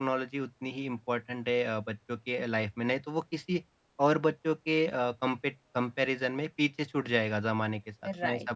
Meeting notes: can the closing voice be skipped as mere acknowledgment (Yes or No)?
No